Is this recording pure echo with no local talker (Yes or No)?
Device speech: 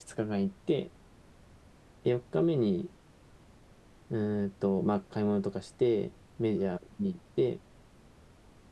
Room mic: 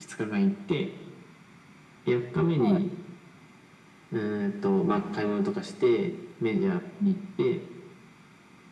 No